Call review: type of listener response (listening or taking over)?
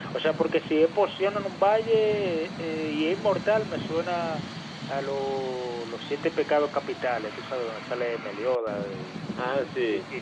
taking over